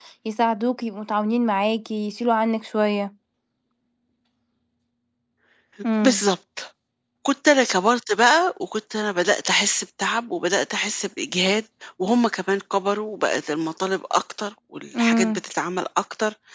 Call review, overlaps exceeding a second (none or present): none